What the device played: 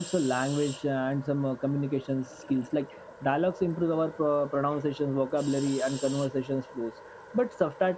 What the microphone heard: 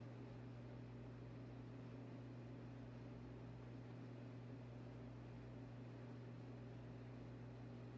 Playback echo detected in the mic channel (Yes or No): No